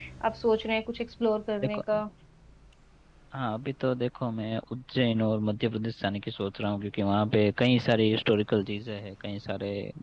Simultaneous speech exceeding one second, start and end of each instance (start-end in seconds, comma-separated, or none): none